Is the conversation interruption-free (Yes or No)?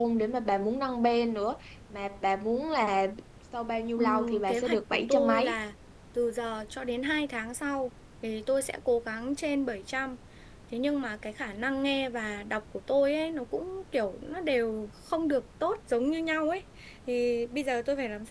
No